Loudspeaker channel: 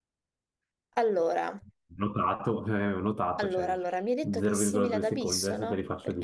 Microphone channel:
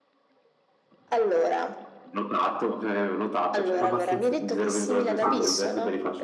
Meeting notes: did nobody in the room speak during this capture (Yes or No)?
No